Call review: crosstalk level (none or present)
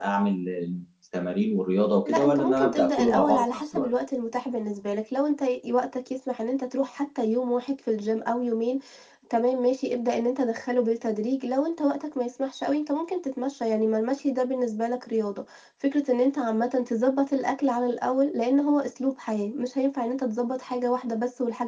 present